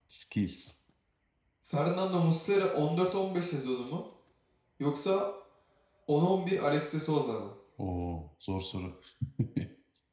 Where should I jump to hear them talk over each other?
none

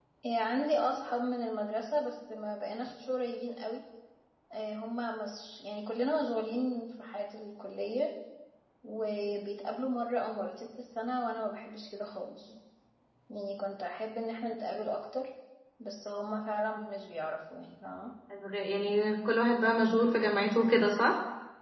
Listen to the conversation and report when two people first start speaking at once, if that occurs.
none

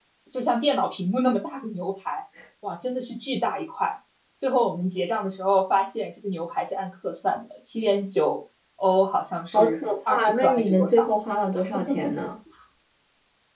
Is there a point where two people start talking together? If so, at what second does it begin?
10 s

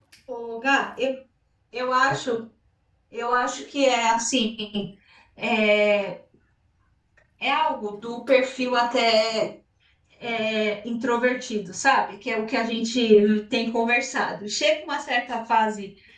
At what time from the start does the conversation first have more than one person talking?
none

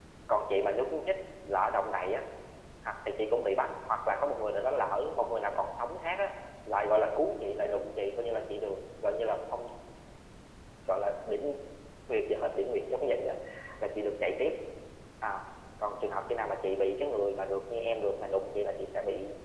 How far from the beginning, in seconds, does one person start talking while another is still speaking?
none

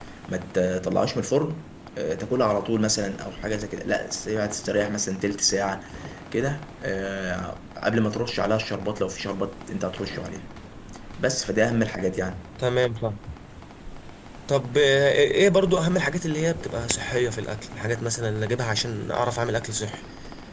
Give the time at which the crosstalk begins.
none

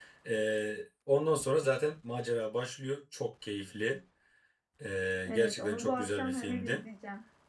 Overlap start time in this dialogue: 5 s

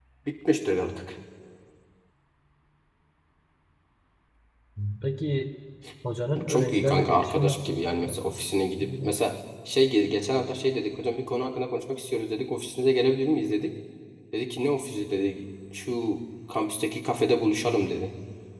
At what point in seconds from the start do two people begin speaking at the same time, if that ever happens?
6 s

